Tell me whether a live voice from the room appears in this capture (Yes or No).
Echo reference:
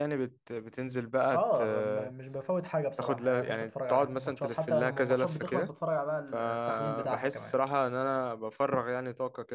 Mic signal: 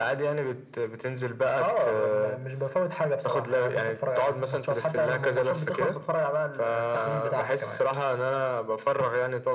No